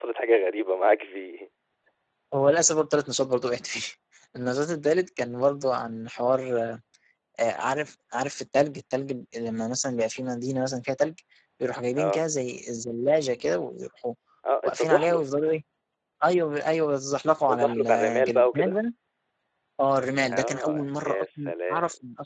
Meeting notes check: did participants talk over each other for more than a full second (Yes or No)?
Yes